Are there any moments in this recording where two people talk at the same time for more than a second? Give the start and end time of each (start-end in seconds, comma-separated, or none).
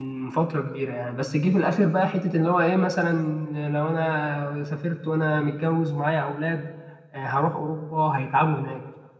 none